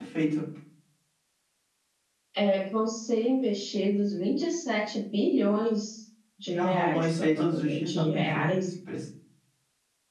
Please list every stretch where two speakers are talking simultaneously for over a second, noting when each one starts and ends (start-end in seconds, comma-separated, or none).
6.5-8.4